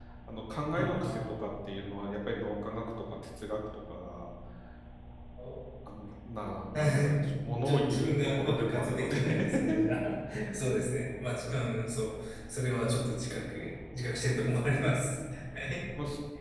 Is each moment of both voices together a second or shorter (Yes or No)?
No